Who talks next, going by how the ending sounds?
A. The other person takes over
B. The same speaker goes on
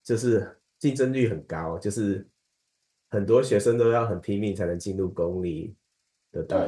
A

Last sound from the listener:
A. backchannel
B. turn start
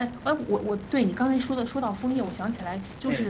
A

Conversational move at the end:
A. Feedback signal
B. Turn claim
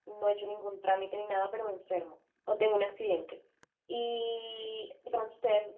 A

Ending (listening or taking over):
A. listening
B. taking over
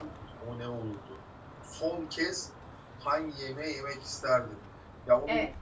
B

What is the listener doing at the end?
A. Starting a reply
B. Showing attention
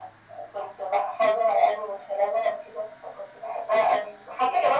B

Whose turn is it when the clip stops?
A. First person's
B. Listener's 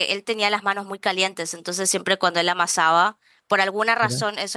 A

